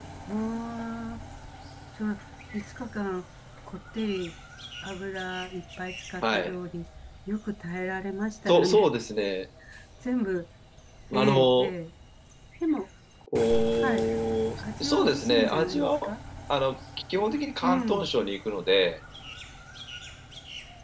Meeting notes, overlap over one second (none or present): present